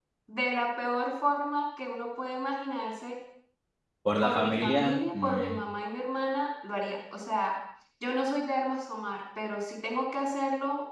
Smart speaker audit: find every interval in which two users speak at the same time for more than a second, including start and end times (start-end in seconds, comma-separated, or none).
4.2-5.6